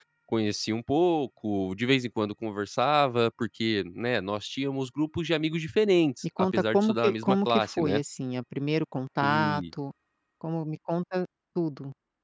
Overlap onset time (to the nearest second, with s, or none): 7 s